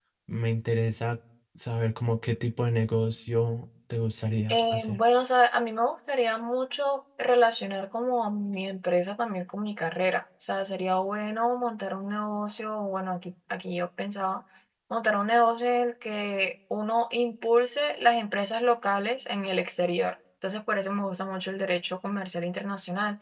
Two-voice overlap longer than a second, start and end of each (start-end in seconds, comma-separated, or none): none